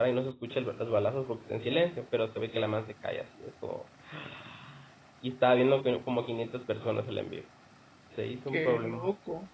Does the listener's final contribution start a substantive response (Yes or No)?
Yes